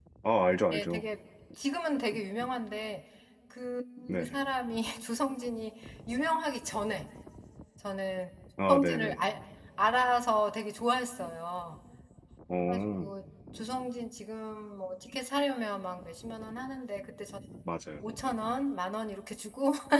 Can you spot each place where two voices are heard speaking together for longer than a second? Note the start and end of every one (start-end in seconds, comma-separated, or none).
none